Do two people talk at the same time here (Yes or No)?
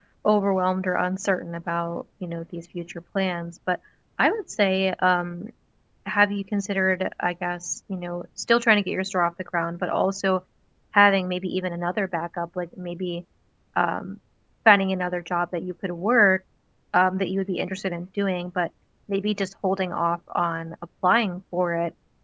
No